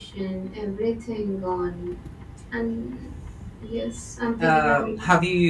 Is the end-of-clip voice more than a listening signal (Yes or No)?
Yes